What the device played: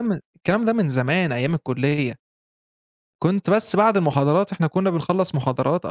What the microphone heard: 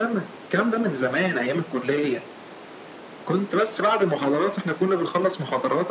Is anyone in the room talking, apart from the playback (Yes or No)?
No